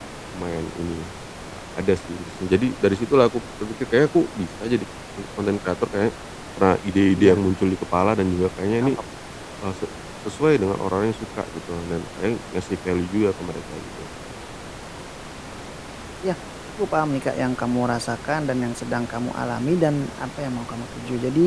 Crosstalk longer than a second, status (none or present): none